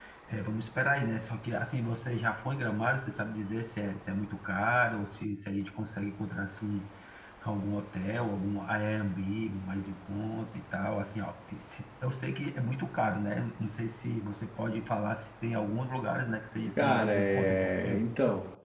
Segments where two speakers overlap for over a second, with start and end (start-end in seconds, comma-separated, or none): 16.8-18.0